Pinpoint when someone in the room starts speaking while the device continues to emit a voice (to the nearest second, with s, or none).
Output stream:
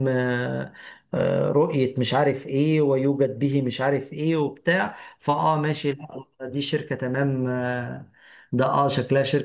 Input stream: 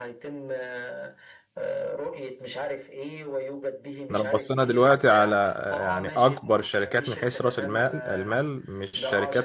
4 s